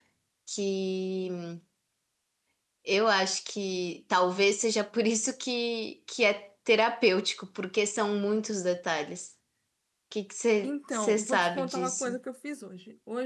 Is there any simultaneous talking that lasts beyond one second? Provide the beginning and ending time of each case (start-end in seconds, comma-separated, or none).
10.6-12.2